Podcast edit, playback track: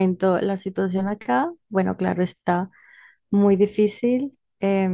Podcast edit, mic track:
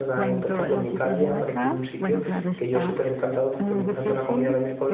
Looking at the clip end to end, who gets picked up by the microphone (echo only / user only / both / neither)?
both